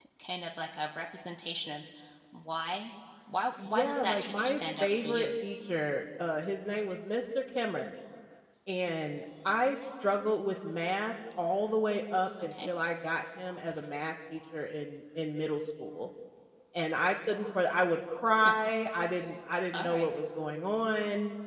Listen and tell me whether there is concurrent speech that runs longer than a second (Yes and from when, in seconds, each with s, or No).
Yes, from 3.6 s